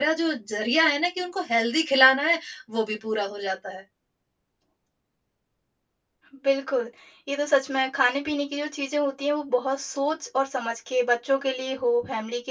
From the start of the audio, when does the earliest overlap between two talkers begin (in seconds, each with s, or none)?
none